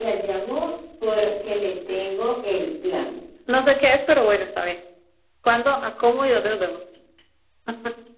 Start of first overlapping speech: none

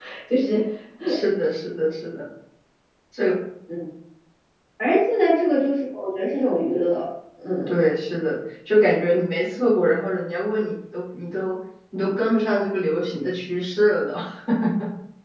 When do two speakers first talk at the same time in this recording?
none

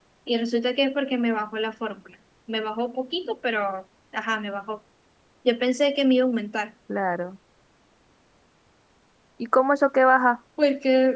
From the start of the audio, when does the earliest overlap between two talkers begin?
none

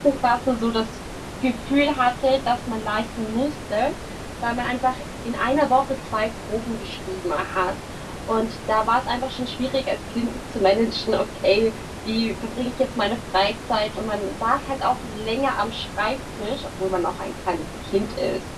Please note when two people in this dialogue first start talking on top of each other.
none

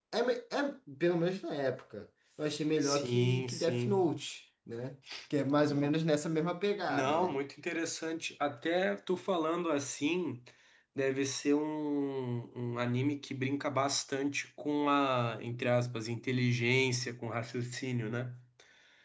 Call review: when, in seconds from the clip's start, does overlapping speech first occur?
2.8 s

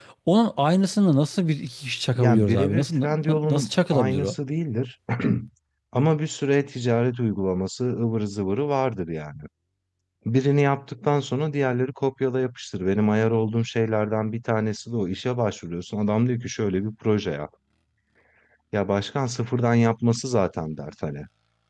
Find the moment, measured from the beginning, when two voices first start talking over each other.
2.1 s

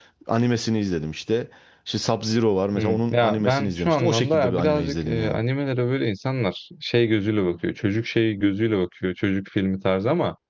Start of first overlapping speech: 2.8 s

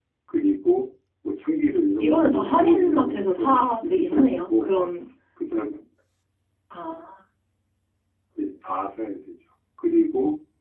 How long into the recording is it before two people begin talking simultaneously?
2.0 s

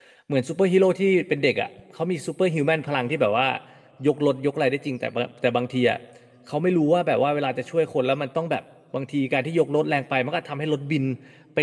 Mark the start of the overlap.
none

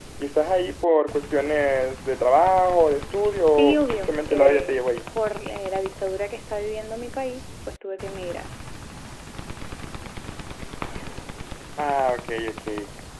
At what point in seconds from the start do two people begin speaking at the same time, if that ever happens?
3.5 s

